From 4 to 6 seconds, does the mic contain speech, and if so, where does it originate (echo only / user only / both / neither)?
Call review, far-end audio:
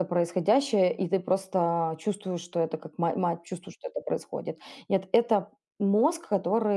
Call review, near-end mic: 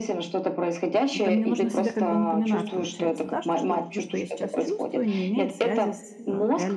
both